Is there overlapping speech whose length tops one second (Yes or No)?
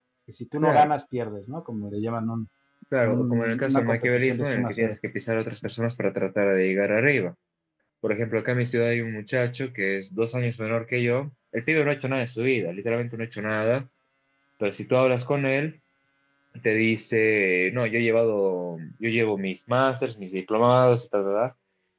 Yes